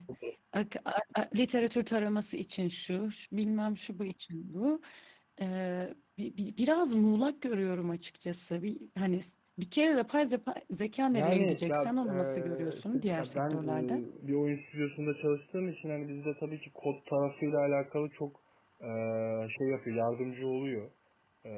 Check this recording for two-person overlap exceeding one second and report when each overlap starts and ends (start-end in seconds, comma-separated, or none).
11.1-14.0